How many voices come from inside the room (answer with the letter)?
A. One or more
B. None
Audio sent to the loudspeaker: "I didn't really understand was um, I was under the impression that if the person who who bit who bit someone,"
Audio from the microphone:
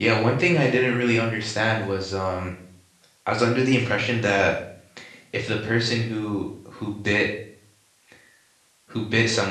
B